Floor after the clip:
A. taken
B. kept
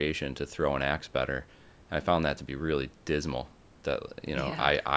B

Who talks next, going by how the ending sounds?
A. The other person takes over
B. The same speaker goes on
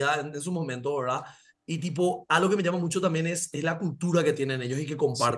A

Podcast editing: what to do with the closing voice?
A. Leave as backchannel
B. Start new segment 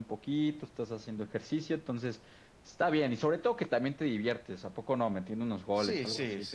B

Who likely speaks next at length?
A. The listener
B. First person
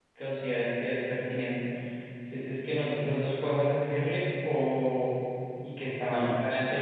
B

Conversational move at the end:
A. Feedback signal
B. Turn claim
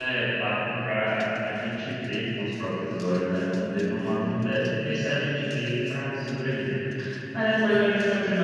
A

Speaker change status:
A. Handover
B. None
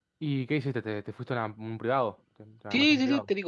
A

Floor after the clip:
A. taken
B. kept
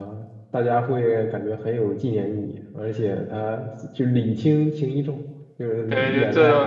A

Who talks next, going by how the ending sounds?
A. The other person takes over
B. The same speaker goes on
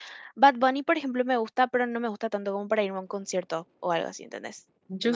A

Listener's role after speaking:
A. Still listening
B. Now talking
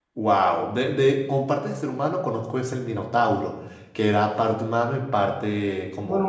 B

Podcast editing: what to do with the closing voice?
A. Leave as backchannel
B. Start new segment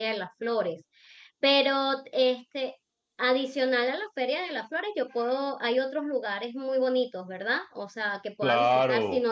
B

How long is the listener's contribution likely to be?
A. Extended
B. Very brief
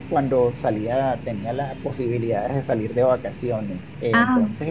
B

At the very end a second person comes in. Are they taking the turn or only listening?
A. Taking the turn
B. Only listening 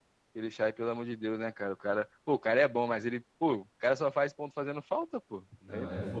A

